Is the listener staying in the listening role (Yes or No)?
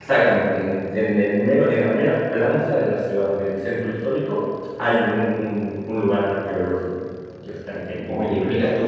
No